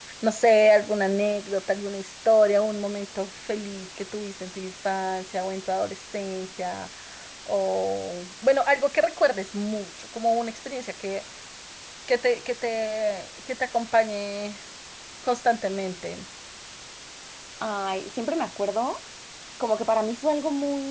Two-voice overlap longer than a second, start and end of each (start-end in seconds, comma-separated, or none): none